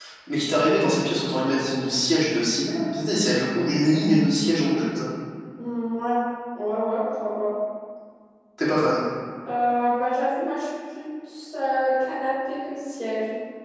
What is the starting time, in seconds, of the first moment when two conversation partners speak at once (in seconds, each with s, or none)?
none